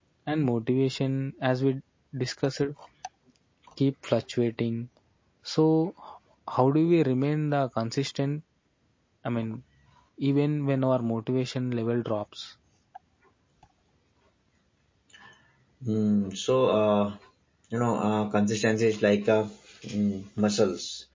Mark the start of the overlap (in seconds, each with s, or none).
none